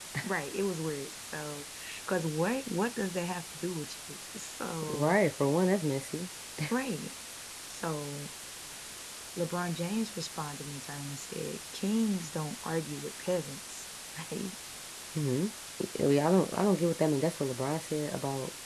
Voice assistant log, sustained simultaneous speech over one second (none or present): none